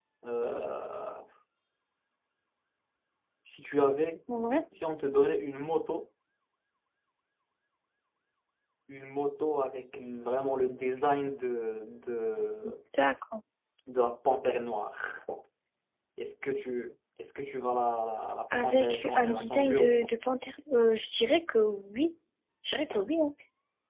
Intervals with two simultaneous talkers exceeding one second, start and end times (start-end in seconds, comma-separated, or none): 18.6-20.1